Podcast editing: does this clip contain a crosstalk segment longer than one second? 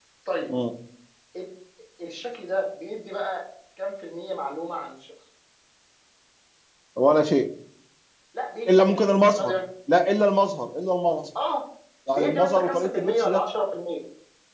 Yes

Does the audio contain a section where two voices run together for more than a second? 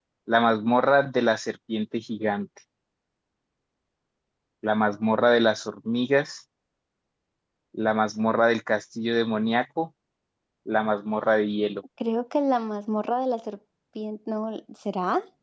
No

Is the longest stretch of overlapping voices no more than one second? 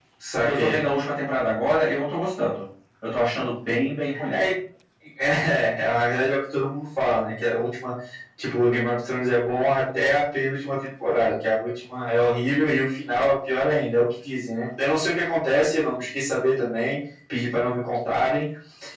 Yes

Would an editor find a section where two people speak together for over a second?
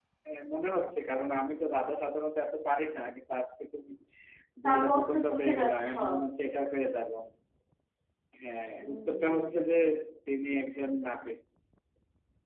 Yes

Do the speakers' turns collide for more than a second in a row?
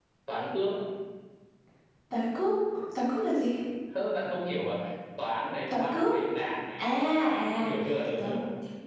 No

